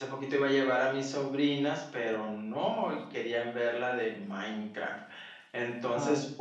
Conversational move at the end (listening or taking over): listening